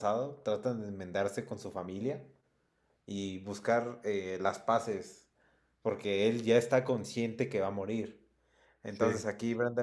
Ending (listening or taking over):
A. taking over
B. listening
B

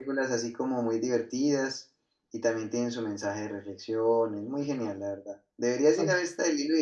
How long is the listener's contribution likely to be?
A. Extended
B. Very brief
B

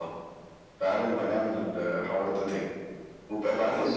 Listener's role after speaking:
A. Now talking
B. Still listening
B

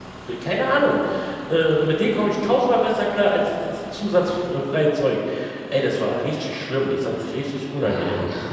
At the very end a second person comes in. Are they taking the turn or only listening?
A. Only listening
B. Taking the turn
B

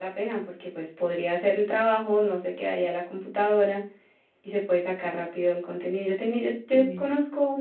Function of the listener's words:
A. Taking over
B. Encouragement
B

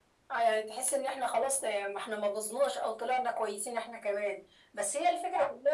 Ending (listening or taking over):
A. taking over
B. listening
B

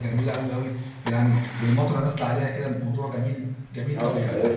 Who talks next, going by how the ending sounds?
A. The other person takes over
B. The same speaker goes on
A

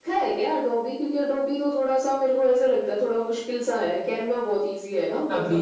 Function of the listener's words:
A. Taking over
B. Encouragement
A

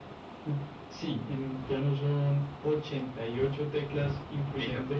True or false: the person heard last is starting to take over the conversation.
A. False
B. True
A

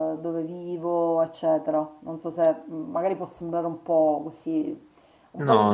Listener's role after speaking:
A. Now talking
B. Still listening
B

